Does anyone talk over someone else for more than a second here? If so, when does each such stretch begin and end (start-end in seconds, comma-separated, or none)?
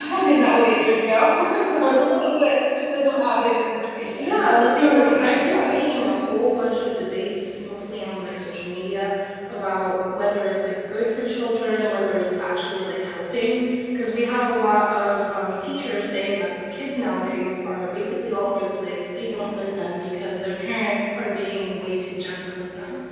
4.2-5.8